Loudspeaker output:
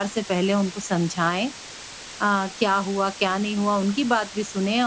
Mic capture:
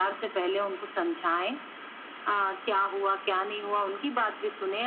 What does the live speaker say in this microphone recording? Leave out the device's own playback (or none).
none